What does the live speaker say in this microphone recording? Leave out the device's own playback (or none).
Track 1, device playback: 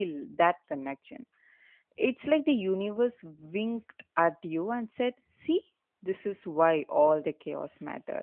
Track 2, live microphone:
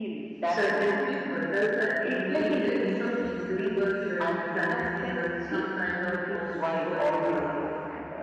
certain people. Does that mean there is some invisible thread connecting us, some kind of cosmic choreography